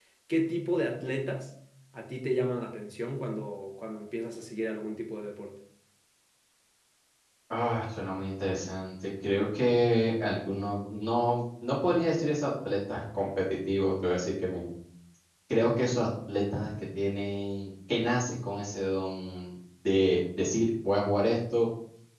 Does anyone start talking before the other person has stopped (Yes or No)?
No